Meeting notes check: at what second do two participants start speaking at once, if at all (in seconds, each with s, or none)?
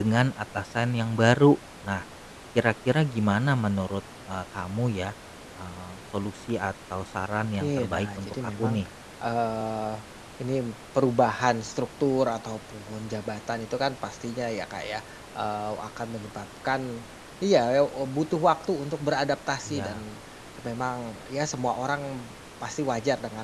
7.5 s